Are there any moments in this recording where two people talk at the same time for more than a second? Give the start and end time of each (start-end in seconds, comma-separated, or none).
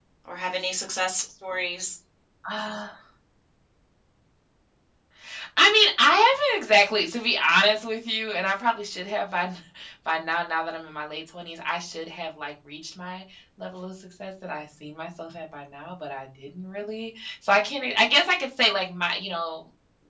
none